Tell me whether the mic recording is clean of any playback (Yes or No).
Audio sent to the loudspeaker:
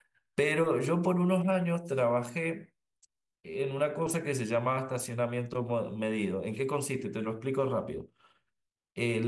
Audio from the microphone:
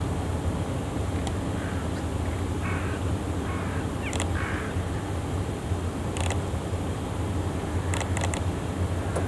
Yes